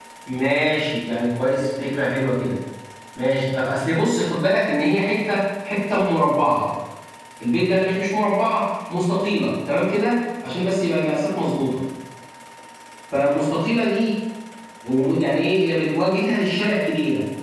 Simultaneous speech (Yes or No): No